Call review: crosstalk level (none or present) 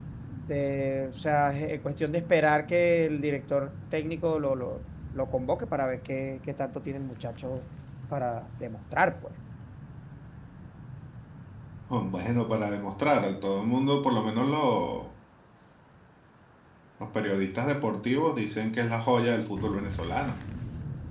none